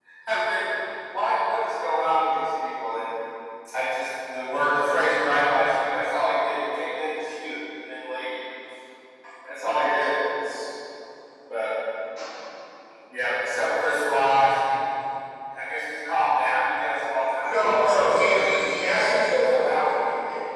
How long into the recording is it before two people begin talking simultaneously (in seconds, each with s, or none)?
17.2 s